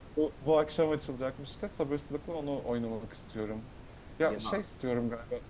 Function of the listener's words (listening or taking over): listening